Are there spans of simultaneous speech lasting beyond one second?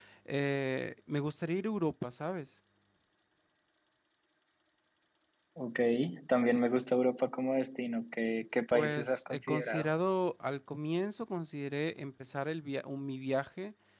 Yes, from 8.7 s

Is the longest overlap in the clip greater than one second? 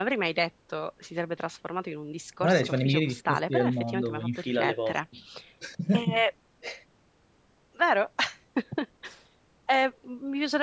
Yes, from 2.4 s

